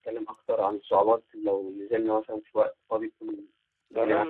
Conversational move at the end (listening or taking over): taking over